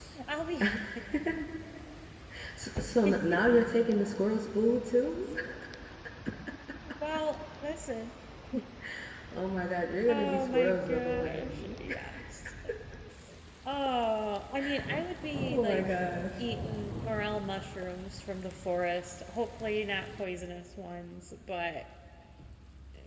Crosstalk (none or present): present